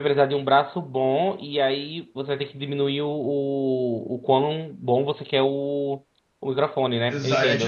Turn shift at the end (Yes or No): Yes